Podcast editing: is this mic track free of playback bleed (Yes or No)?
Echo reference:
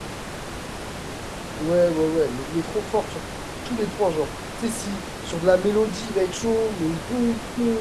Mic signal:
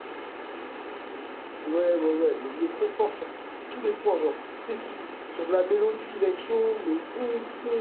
No